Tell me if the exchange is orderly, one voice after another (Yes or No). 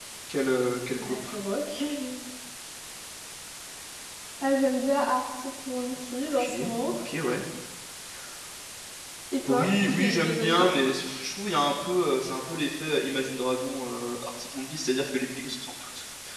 No